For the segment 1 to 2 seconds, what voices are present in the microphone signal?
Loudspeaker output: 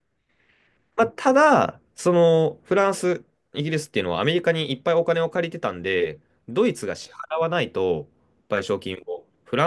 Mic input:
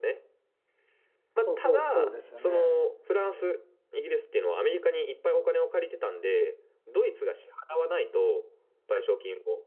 both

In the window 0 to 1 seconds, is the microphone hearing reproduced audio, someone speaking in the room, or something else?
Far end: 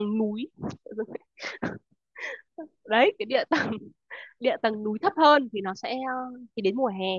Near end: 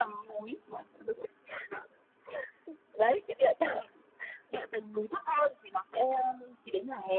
echo only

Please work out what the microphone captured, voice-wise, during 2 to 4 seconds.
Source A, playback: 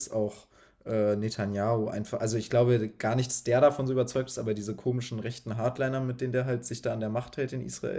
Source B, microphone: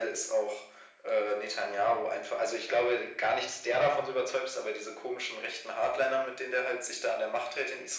echo only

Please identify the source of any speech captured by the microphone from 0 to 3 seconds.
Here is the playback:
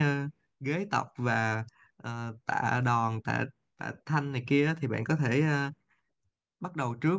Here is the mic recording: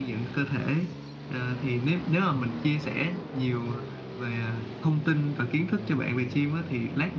user only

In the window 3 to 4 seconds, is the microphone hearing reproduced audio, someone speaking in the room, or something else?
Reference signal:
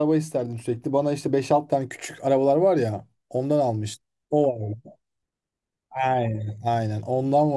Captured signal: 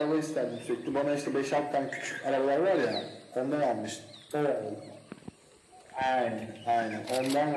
echo only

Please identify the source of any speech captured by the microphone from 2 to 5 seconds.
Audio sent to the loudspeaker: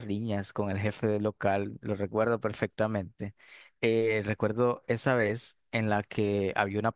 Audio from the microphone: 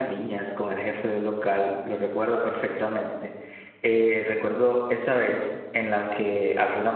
echo only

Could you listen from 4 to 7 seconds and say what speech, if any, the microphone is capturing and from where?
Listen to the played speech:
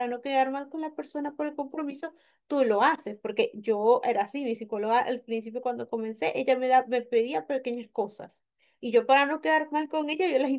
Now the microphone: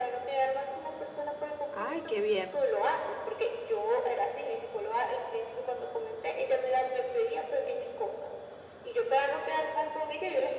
echo only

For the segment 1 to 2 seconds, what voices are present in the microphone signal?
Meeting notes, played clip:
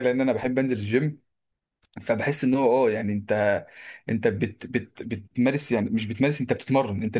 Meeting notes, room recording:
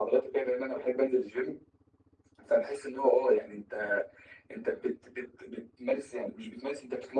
echo only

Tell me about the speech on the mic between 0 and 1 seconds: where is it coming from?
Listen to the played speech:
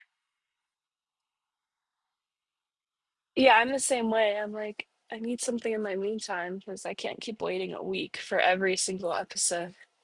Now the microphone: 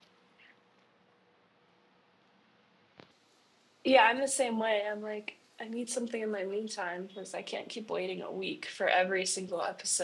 neither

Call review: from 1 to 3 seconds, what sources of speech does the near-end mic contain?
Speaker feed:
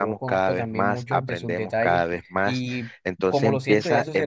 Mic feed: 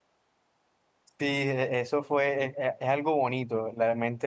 user only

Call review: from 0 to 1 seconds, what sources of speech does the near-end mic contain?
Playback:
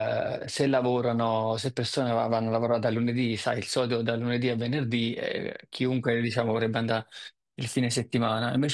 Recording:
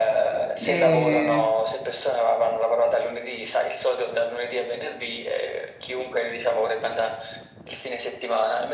both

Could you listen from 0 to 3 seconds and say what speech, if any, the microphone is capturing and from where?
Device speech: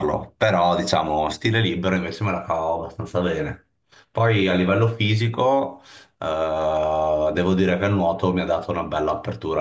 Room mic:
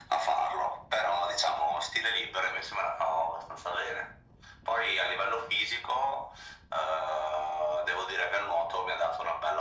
echo only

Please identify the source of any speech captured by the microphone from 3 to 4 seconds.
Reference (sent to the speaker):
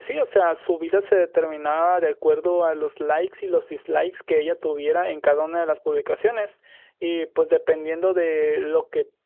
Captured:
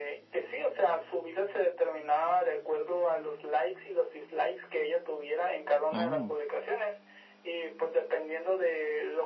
echo only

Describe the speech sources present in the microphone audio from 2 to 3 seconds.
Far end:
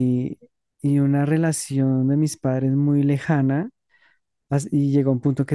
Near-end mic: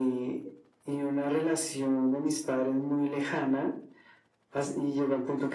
echo only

